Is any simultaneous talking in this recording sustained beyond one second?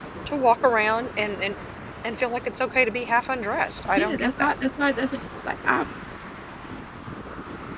No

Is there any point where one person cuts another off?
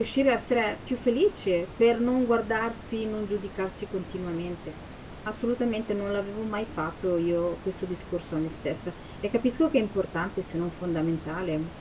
No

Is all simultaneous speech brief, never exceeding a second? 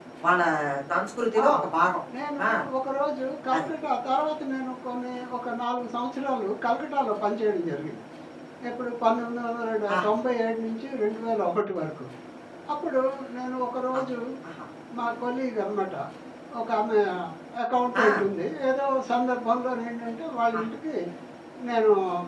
Yes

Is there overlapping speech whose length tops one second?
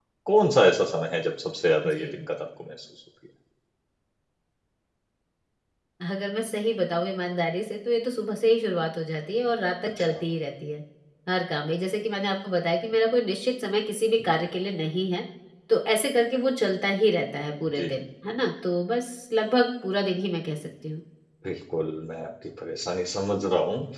No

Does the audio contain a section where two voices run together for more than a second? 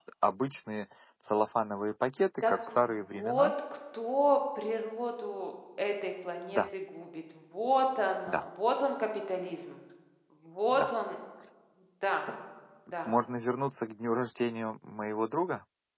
No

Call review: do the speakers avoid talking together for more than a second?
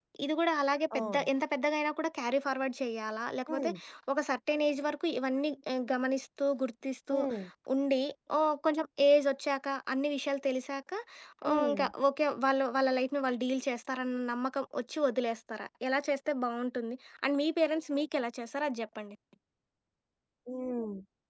Yes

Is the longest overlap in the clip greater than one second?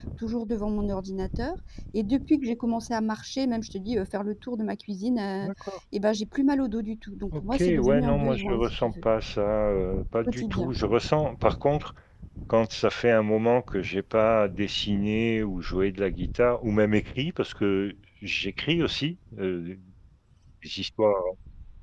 Yes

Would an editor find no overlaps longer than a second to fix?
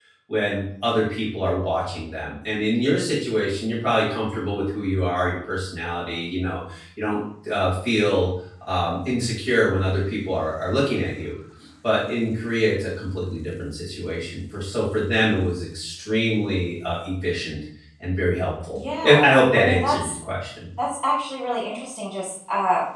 No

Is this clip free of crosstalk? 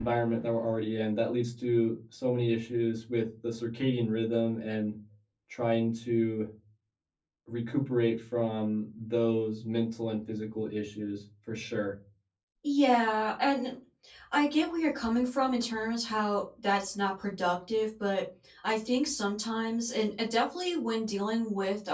Yes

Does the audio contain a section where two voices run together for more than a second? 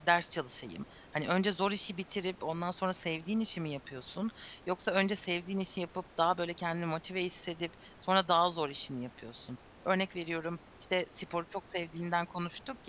No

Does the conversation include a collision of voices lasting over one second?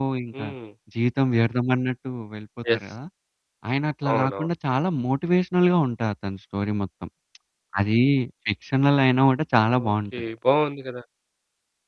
No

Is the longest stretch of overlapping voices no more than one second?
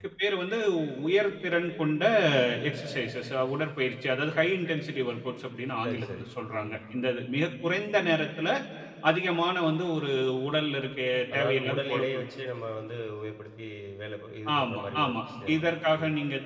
No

